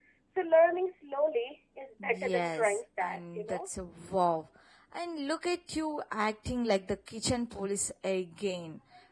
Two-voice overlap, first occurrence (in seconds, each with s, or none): 2.0 s